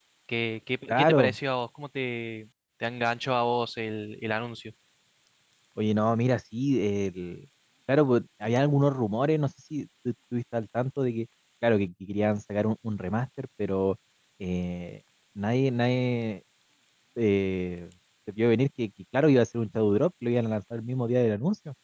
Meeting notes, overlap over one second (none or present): none